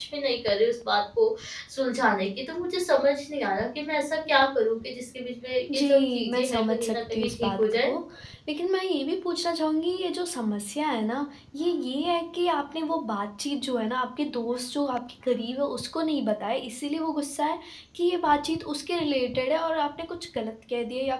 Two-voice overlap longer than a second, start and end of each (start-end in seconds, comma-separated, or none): 5.7-7.9